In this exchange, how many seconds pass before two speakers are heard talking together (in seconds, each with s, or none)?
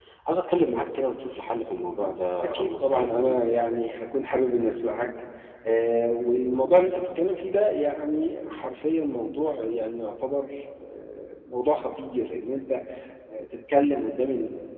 1.5 s